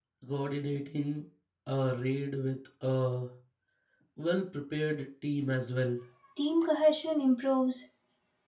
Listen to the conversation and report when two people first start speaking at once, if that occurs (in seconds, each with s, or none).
none